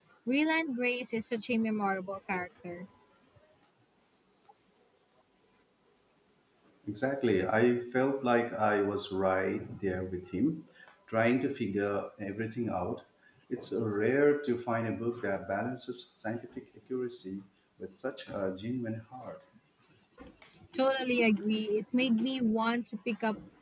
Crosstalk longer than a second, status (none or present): none